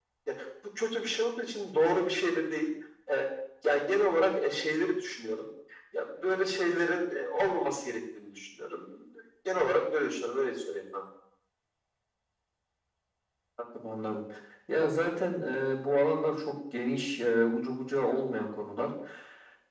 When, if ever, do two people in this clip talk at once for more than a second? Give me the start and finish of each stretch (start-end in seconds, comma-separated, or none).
none